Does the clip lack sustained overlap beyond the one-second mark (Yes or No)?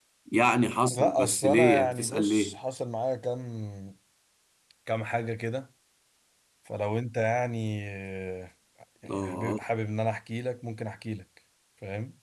No